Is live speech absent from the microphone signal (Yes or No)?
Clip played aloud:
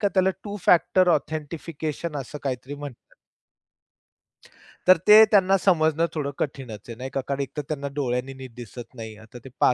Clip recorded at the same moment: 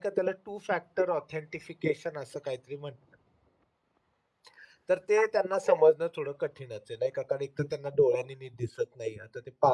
Yes